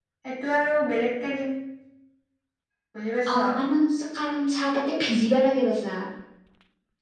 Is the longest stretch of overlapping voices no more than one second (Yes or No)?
Yes